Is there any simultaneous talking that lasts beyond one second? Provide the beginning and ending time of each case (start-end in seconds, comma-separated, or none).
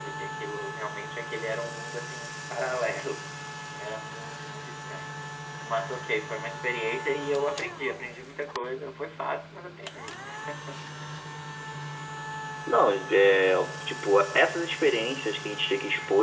none